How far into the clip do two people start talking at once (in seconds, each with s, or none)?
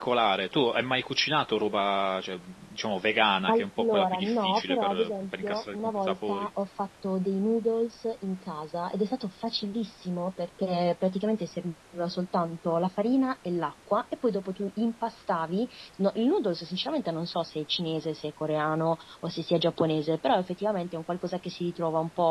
3.5 s